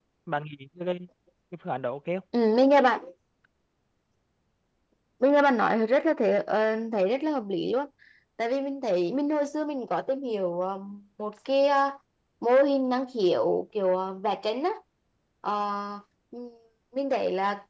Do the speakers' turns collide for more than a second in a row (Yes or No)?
No